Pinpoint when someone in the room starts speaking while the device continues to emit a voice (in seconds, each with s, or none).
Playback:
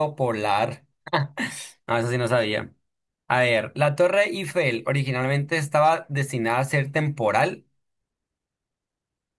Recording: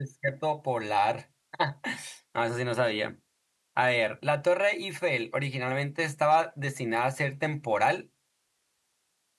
none